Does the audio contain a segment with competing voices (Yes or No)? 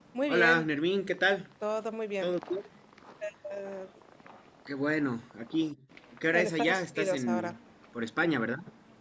Yes